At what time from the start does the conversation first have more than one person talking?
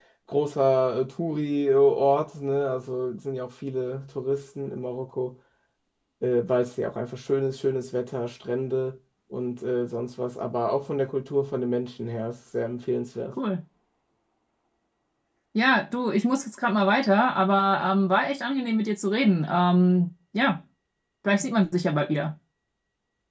none

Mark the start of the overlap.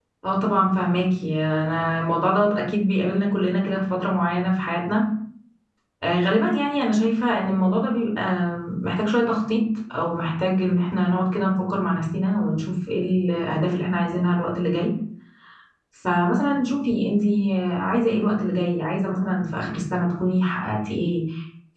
none

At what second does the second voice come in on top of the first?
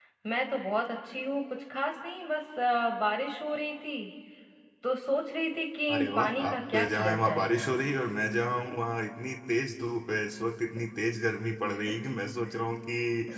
6 s

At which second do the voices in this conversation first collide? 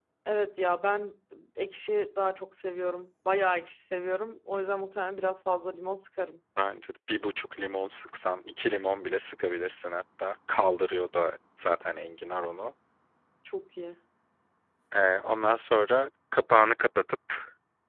none

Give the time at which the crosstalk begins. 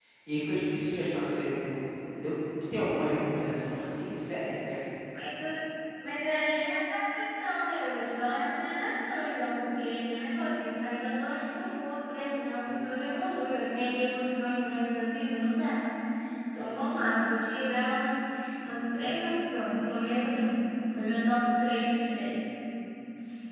none

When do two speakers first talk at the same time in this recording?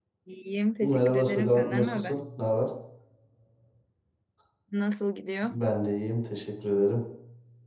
1 s

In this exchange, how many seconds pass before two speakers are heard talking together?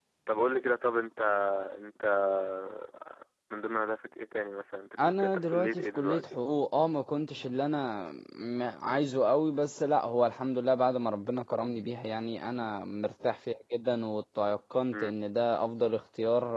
5 s

